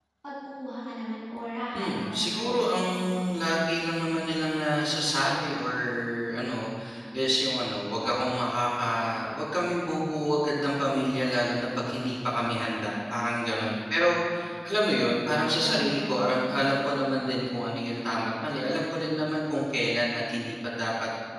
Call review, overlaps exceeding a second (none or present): present